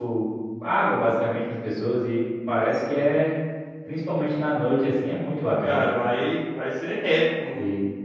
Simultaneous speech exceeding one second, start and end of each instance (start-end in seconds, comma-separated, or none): none